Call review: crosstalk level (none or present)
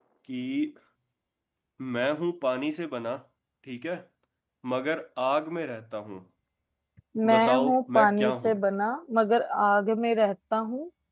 present